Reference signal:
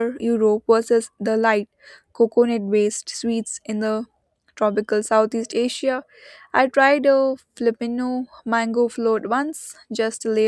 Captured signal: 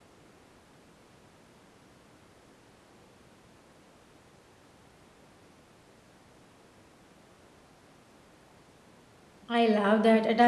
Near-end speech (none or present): present